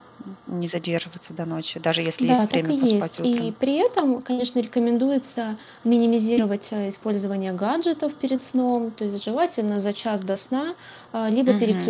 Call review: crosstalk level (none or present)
present